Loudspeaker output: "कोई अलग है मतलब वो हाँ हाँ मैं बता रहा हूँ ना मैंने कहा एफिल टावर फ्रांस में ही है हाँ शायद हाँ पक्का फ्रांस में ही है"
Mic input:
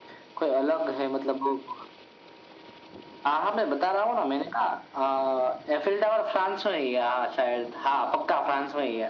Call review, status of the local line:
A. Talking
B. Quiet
B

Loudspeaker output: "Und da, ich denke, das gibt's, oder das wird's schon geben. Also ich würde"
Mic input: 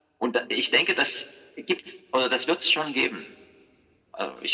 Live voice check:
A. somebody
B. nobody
B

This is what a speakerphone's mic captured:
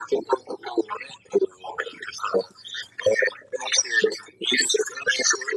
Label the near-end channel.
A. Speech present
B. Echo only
B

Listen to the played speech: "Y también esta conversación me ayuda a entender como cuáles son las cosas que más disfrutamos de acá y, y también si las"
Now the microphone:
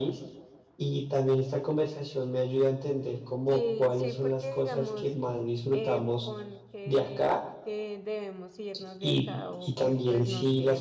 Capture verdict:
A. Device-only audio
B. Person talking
B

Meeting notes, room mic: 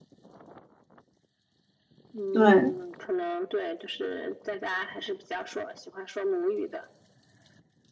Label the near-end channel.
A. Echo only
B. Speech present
B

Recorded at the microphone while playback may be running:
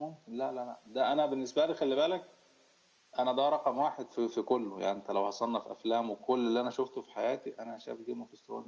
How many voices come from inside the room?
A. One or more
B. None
B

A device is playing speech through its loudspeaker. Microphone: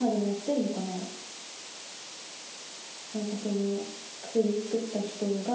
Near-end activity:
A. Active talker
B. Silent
A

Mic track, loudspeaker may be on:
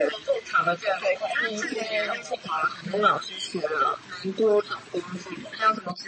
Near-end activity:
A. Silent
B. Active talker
B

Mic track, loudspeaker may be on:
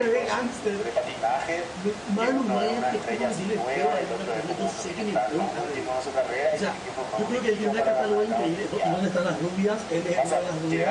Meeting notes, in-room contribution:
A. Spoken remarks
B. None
A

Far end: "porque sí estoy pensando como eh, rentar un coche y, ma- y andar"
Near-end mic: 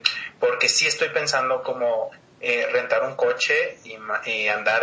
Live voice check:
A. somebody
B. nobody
B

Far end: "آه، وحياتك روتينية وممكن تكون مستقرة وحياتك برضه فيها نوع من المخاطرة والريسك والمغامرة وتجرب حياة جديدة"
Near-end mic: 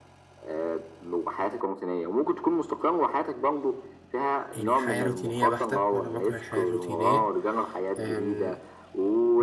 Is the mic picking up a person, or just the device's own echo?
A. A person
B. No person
A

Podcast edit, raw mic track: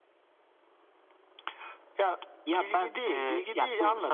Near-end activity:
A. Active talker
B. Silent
B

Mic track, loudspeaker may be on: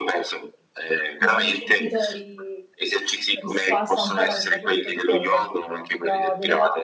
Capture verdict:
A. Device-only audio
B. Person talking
B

